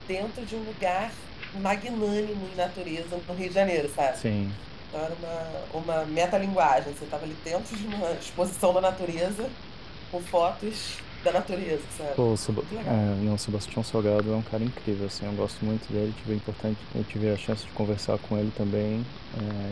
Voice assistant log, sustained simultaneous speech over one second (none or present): none